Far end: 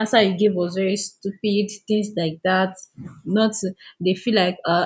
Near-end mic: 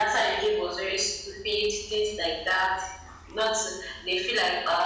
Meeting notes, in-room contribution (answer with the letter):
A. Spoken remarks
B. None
B